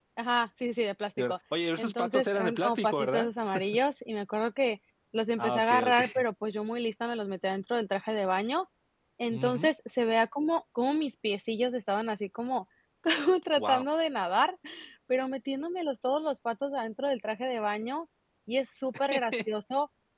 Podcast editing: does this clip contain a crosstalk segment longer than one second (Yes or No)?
Yes